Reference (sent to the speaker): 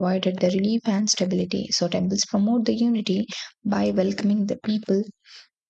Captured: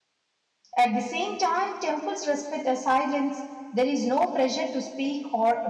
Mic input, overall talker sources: user only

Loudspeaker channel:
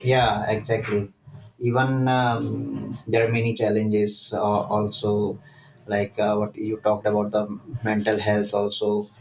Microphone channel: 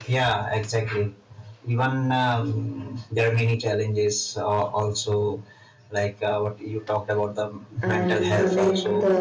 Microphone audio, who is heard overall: both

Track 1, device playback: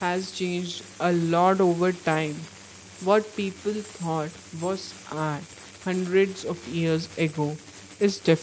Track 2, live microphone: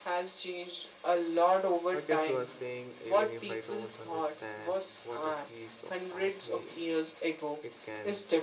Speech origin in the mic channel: both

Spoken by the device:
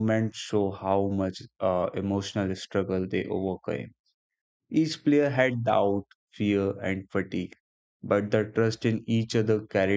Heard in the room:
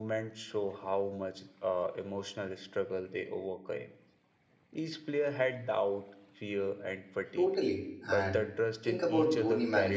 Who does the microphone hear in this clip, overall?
both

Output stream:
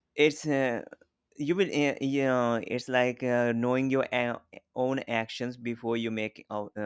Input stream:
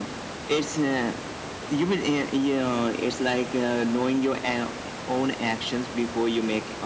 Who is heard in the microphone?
echo only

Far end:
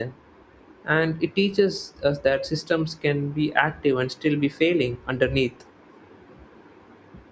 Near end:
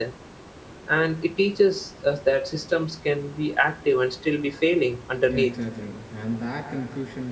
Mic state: both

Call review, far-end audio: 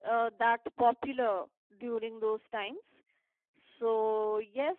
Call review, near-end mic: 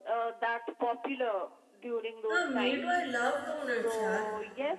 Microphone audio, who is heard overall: both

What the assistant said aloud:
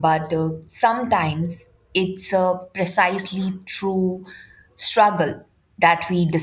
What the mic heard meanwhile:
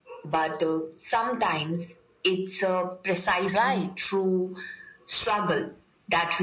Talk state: both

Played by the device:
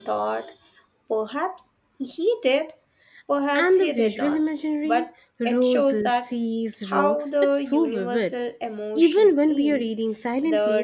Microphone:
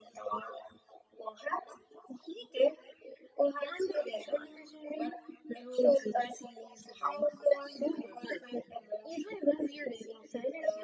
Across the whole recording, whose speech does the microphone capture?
echo only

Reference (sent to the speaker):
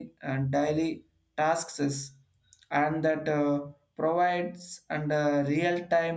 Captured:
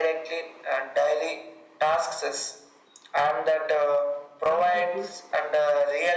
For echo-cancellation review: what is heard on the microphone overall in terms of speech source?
both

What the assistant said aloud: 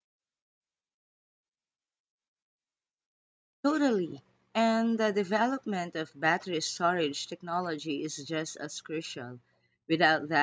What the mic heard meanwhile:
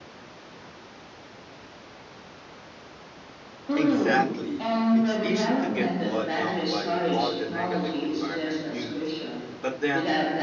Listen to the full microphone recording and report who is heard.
both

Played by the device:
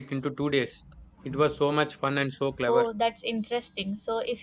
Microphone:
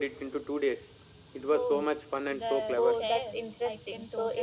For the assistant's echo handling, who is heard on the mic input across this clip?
both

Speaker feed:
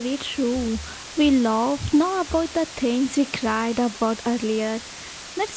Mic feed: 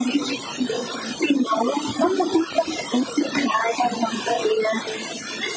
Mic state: echo only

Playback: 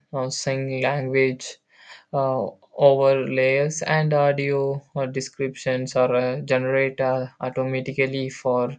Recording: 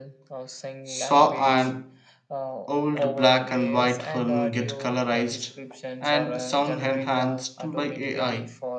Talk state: both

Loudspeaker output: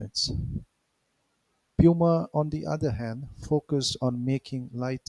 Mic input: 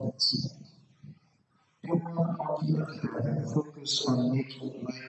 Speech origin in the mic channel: echo only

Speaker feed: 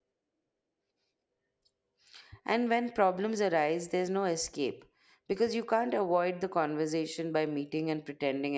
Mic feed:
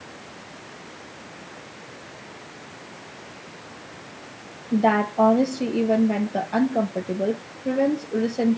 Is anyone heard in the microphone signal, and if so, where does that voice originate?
user only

